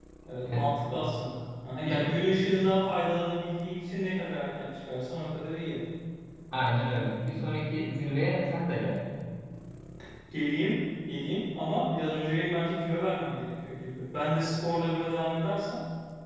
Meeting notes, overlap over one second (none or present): none